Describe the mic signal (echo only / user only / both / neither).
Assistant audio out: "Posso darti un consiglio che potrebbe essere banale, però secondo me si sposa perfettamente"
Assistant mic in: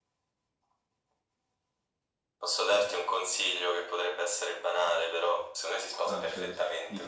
both